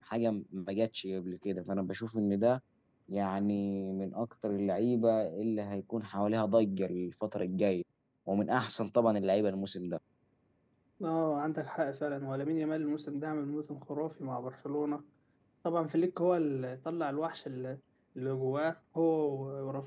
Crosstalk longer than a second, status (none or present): none